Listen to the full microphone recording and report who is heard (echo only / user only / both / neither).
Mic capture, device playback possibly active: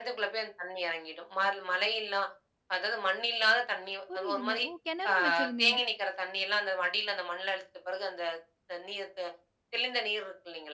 both